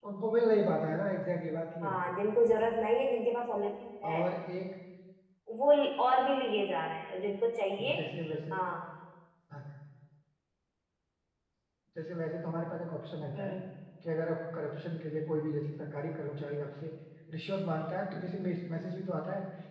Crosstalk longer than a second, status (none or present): none